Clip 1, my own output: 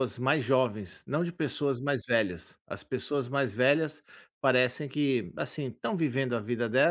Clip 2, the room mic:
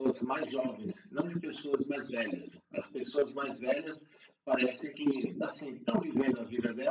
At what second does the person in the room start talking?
none

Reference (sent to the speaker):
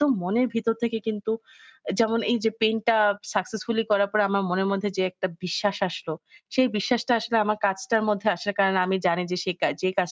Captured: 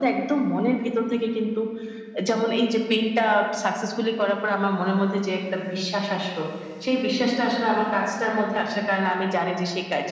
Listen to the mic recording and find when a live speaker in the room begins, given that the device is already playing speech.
none

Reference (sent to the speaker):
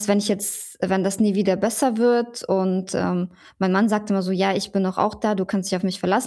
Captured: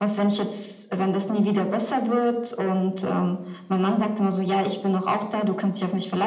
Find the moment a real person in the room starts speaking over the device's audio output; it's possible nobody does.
none

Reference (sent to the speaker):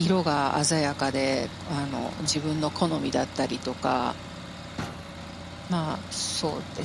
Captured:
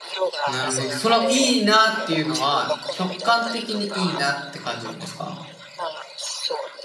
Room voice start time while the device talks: 0.5 s

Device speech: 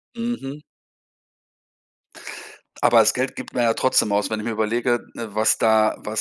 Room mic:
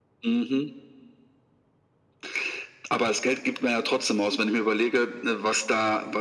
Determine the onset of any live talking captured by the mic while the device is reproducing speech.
none

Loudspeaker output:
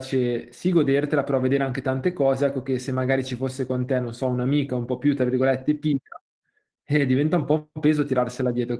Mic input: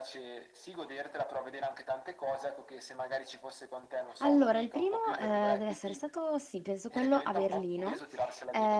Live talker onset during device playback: 4.2 s

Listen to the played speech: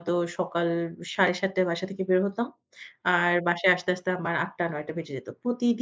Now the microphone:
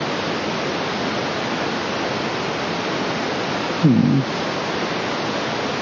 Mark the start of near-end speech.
3.8 s

